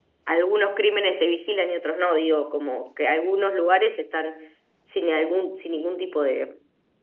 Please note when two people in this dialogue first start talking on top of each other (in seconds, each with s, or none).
none